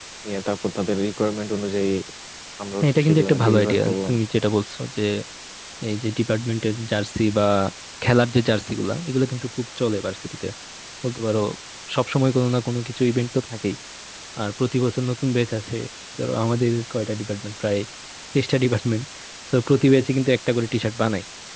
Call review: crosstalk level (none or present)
present